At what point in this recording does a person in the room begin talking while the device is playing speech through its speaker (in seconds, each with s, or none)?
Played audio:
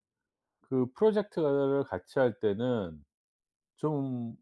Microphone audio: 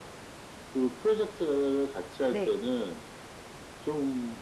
2.3 s